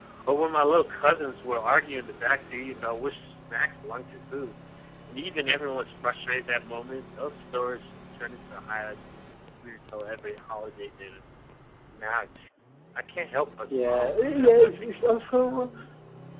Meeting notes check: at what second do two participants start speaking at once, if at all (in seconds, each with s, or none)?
13.7 s